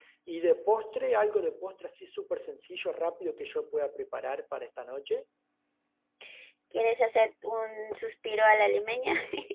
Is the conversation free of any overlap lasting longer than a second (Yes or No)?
Yes